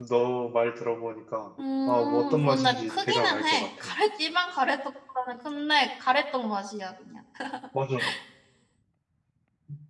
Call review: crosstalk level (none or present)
present